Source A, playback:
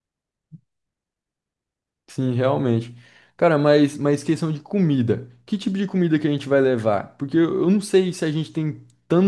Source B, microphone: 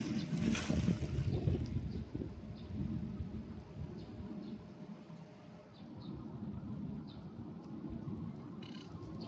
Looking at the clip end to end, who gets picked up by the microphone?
neither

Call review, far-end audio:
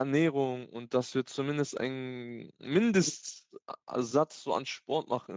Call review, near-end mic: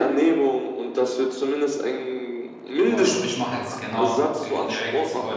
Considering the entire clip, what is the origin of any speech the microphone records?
both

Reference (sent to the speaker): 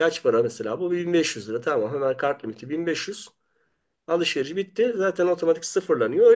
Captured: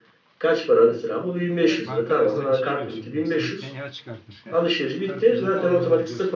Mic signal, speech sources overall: both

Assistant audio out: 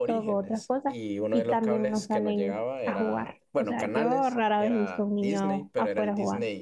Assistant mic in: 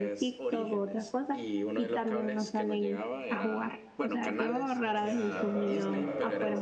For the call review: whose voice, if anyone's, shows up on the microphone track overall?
both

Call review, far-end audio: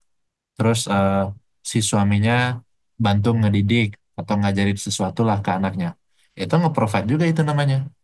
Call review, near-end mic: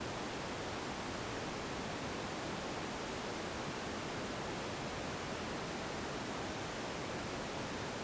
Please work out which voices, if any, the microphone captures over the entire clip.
neither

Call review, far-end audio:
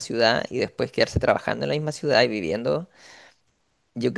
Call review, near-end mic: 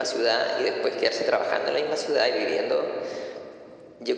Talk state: echo only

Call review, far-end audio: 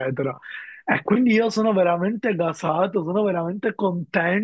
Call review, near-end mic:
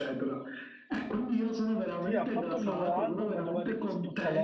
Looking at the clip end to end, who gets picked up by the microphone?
both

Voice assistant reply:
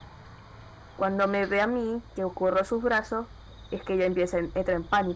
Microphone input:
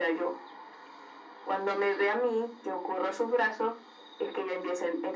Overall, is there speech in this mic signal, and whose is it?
echo only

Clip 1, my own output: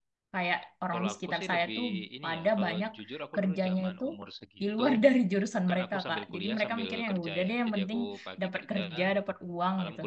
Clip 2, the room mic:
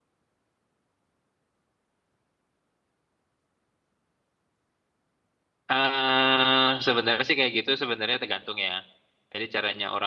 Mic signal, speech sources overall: user only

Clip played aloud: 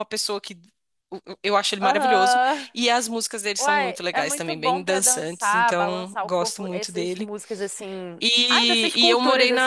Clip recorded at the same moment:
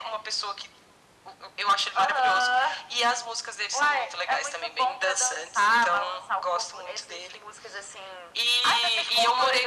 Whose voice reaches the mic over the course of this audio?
echo only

